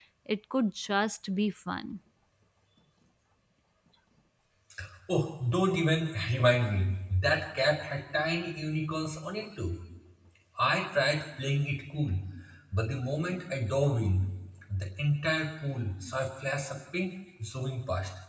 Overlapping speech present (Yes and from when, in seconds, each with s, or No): No